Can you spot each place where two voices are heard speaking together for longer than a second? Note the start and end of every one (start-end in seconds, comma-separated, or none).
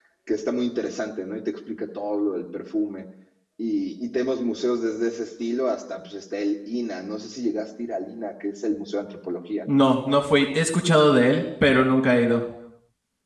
none